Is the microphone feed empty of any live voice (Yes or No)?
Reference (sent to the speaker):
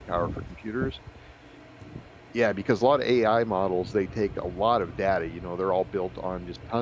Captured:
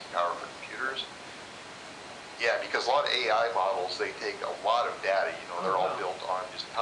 No